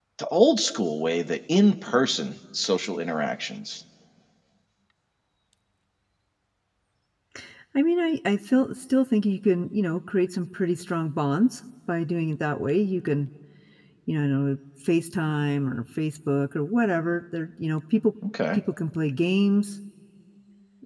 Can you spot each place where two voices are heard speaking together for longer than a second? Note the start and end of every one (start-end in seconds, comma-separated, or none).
none